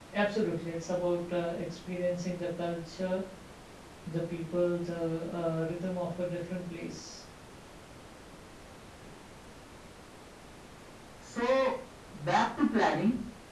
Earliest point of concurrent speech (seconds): none

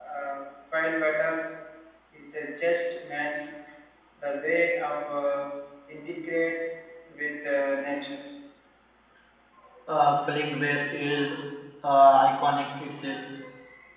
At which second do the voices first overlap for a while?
none

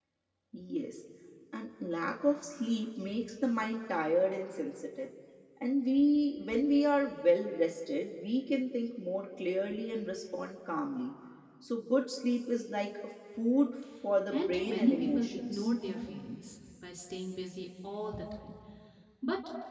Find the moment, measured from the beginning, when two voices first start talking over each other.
14.3 s

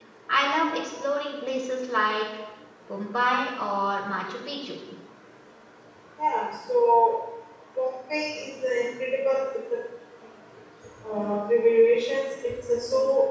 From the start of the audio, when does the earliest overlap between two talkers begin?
none

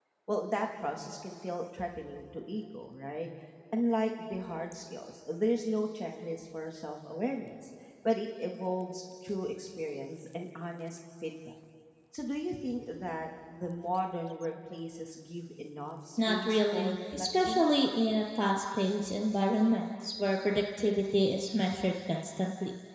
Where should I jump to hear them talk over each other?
16.2 s

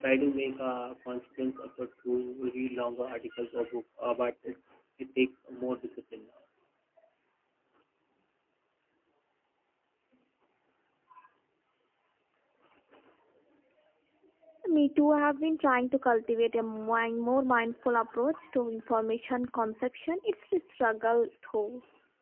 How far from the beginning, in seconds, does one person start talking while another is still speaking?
none

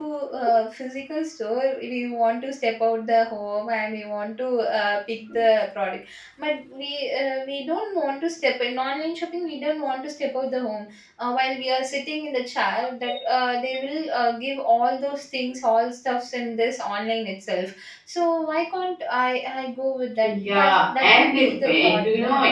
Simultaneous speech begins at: 20.2 s

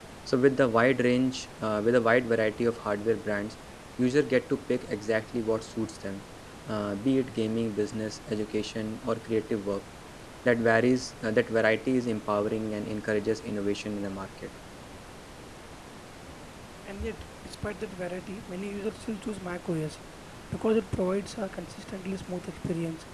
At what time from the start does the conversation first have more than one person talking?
none

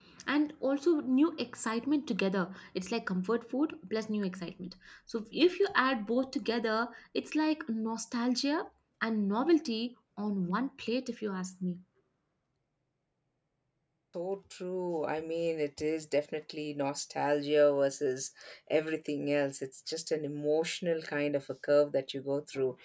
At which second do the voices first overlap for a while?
none

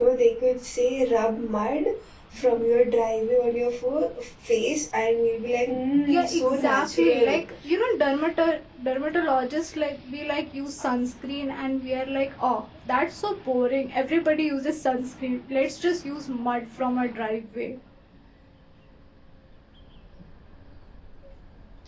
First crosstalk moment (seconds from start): 6.0 s

